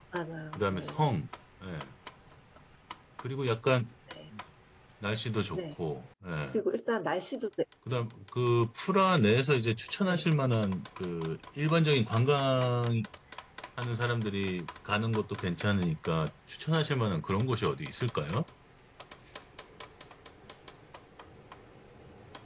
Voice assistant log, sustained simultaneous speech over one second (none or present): none